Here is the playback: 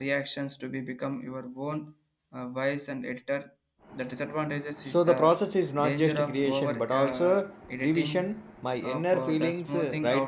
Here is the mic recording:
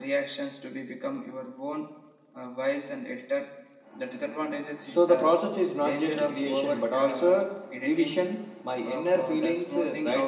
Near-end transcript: none

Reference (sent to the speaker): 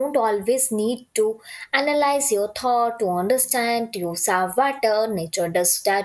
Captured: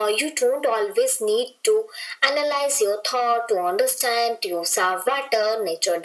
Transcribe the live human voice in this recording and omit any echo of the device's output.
none

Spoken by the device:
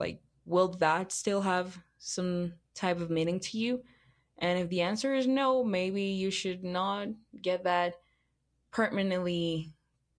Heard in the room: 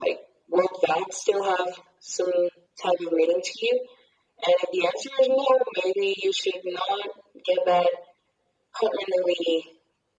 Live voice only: none

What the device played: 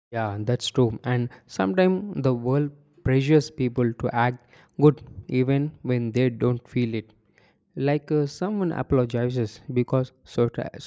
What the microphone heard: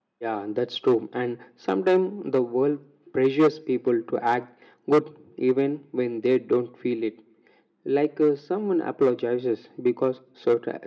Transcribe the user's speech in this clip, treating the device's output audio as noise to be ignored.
none

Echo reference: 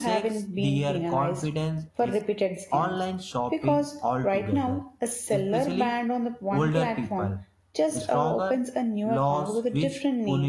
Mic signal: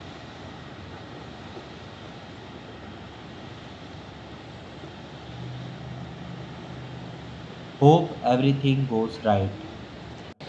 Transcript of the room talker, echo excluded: hope everything goes right.

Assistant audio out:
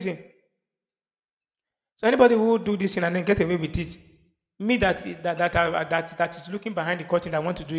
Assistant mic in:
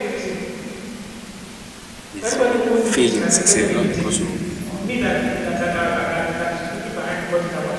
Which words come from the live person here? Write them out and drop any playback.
is been failing sincerely, not because of um,

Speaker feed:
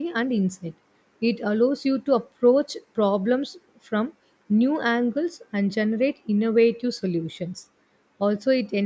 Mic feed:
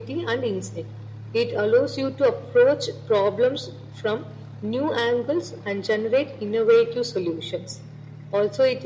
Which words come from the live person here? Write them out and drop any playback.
none

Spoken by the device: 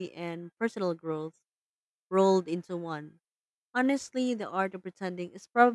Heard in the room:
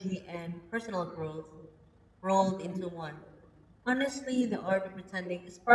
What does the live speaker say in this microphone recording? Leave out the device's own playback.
none

